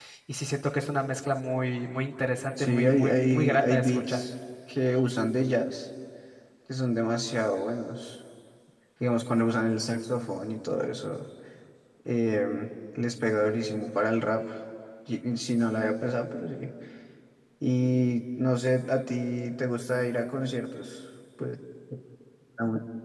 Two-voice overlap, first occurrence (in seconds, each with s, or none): 2.6 s